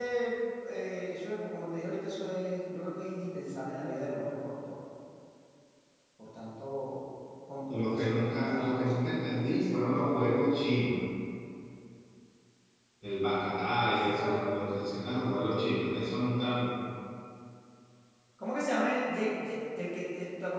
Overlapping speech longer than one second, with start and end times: 7.7-10.4

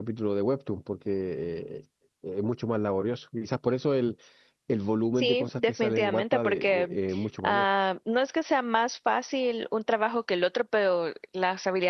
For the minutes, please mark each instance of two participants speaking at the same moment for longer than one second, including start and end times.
5.2-7.0

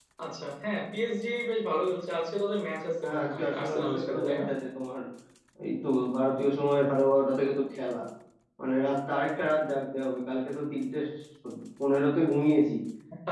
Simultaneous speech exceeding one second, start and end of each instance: 3.0-4.4

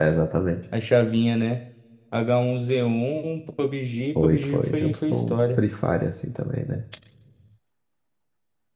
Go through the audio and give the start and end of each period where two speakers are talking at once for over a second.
4.2-5.6

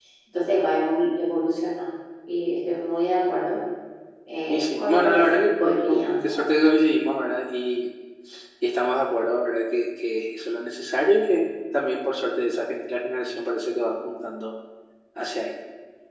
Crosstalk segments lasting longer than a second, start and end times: 4.5-6.6

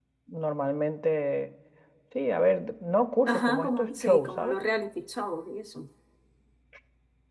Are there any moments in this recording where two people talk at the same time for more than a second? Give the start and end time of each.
3.3-4.6

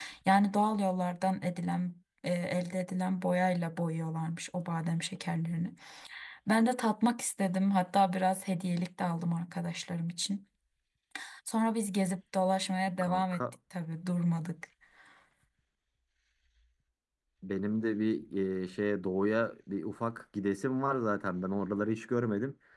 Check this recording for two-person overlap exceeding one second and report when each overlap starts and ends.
none

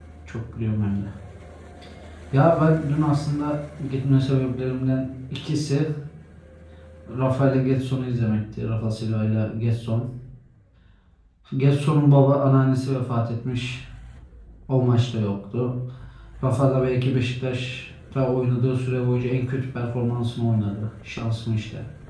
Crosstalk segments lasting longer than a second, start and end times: none

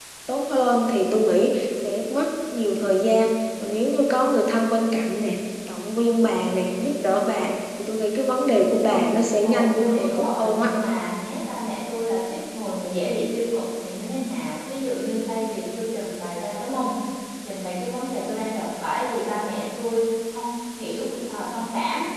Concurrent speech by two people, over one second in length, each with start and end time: 9.4-10.7

